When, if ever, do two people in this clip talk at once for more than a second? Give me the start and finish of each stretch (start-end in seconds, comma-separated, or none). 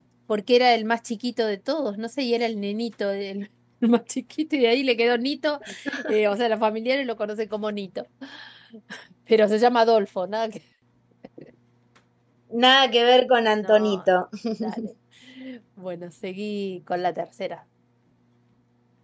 none